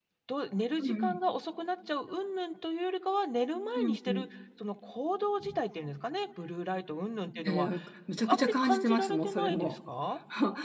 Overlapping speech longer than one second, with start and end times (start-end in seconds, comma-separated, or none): 8.2-9.8